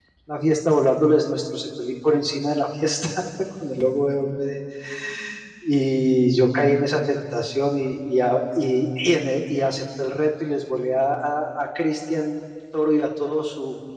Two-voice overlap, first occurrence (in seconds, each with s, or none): none